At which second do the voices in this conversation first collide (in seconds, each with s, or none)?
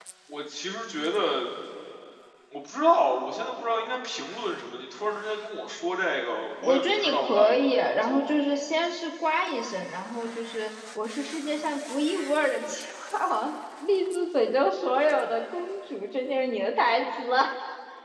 6.6 s